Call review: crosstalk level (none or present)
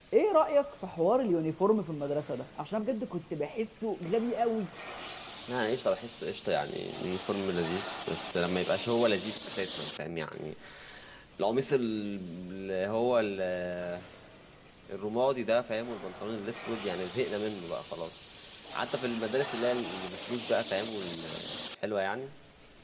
none